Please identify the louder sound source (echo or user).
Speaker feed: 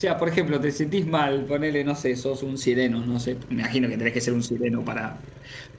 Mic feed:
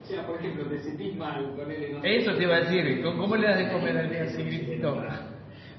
user